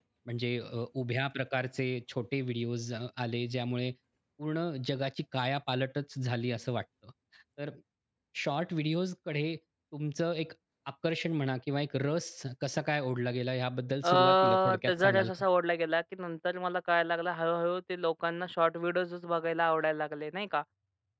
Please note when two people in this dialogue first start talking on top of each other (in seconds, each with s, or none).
14.0 s